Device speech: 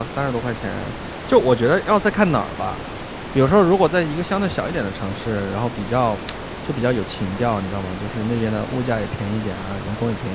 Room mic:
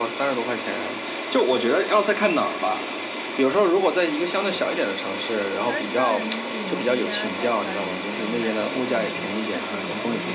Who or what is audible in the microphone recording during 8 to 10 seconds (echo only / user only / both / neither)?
both